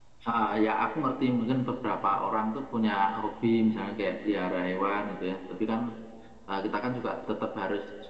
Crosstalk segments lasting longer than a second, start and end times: none

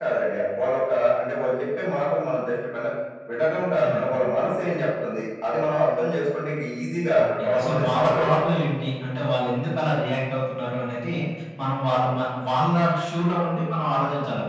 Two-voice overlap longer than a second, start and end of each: 7.2-8.6

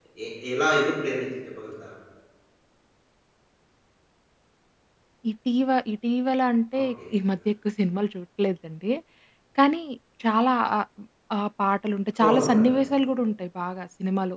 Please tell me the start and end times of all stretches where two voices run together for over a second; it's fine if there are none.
none

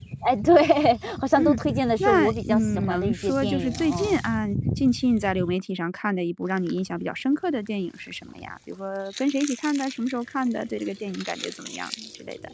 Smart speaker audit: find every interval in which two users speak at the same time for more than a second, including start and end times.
2.0-4.2

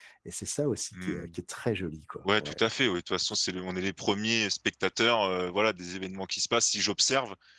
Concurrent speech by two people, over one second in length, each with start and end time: none

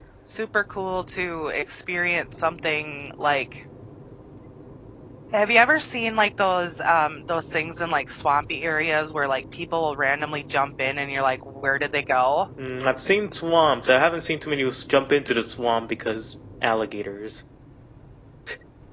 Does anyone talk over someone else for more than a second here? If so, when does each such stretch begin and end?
none

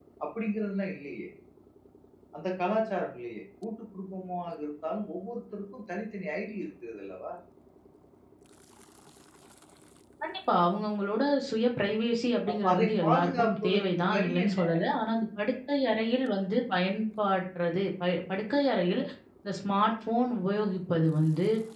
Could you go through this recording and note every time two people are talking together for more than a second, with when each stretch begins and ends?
12.5-14.6

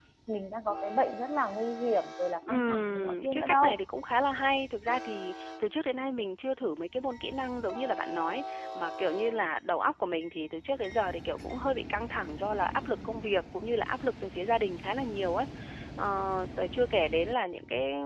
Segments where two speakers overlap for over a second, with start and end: 2.5-3.7

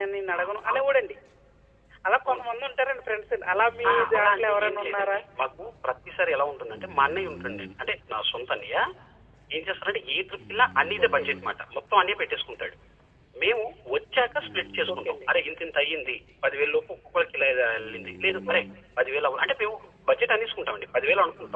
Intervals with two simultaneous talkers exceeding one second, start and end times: 3.9-5.2

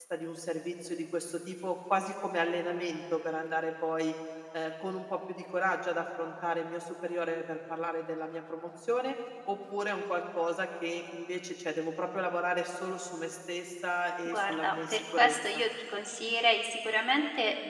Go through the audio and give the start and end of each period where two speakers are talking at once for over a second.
14.2-15.6

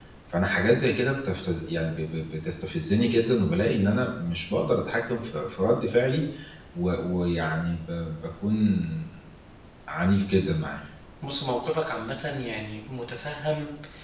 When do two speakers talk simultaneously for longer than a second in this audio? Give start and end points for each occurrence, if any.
none

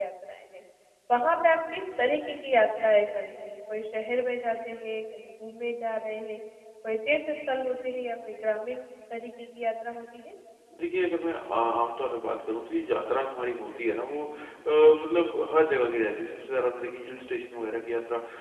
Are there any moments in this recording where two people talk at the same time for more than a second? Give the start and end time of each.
none

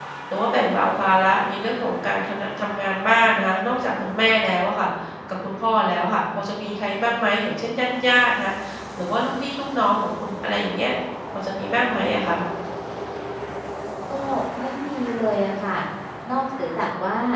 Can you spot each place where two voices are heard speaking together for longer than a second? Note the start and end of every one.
none

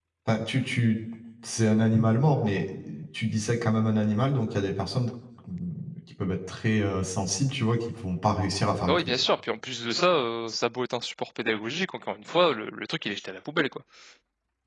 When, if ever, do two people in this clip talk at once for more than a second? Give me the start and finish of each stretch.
none

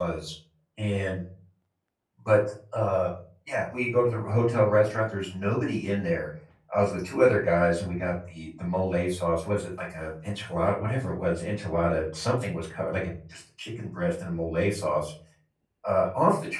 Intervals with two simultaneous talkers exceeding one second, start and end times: none

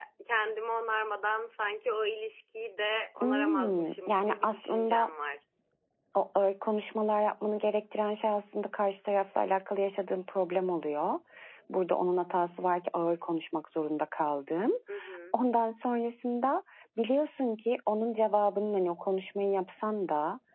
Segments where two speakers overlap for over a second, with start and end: 3.2-5.1

